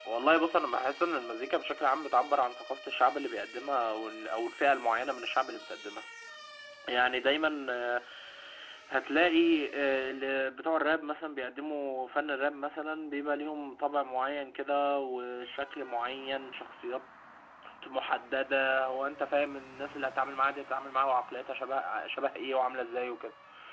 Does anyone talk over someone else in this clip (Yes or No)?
No